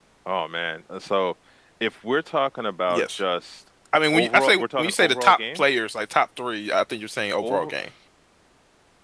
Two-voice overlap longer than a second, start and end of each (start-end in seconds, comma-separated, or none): 4.1-5.6